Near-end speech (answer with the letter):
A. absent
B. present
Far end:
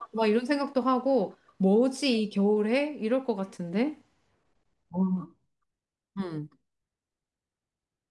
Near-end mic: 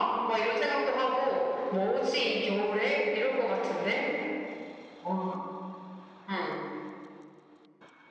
A